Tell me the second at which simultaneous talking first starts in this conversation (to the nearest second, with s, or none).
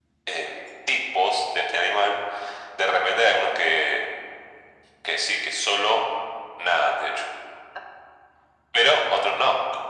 none